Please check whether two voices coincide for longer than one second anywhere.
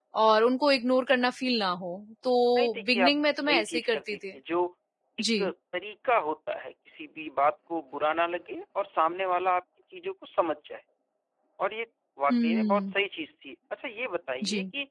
Yes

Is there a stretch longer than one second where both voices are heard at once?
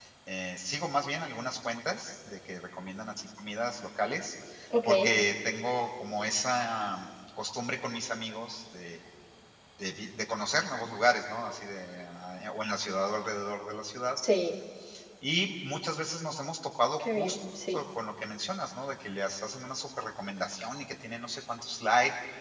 No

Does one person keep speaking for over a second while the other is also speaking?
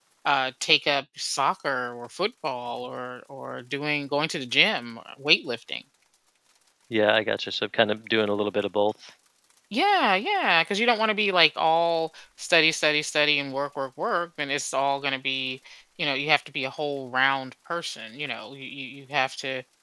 No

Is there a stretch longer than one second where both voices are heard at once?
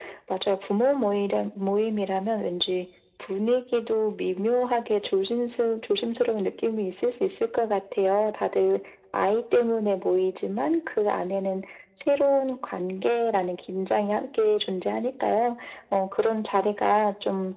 No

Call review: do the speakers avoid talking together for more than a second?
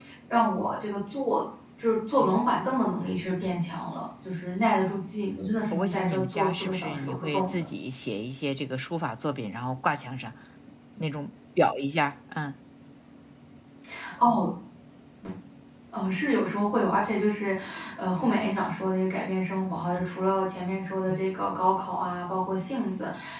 No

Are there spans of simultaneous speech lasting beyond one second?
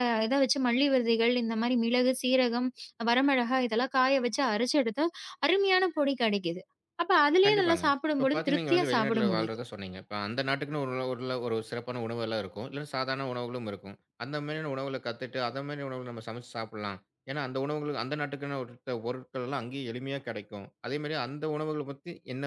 Yes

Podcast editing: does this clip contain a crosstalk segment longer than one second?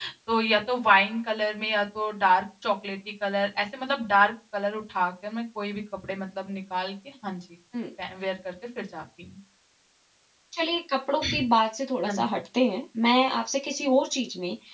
No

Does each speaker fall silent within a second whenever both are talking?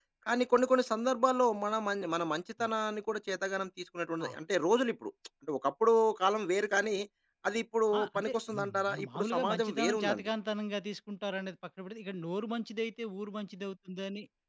No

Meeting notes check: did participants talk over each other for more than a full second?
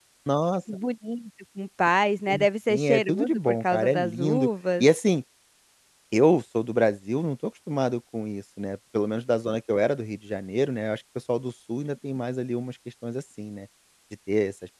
Yes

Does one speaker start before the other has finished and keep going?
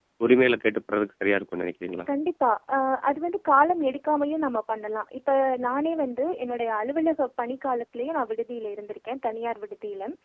No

